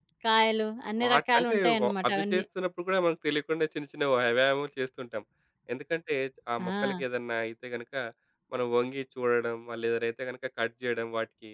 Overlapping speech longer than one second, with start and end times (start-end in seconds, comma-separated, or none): 1.0-2.4